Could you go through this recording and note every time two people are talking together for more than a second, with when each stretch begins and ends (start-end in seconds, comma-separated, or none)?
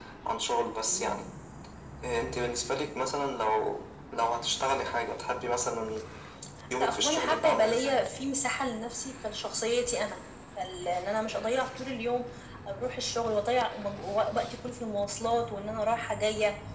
6.8-8.0